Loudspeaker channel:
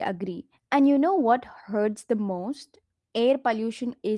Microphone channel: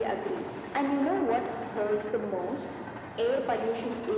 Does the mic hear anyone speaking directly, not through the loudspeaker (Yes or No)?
No